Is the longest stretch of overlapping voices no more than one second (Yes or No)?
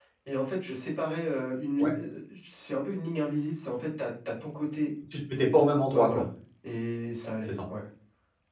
Yes